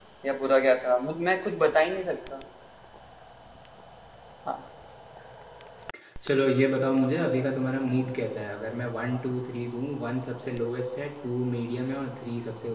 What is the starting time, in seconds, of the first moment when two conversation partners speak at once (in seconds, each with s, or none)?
none